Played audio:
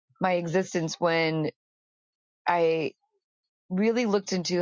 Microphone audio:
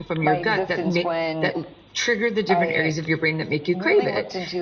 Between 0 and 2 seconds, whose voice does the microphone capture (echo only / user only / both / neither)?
both